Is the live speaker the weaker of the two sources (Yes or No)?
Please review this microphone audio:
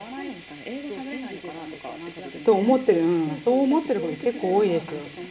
No